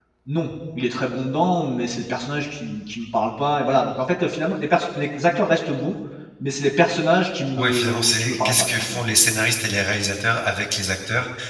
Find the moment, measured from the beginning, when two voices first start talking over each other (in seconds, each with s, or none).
7.5 s